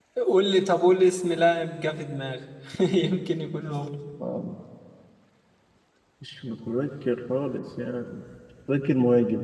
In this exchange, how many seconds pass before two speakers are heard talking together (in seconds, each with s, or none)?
none